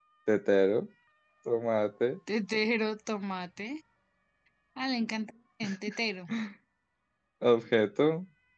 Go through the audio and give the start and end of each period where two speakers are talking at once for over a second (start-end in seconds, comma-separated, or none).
none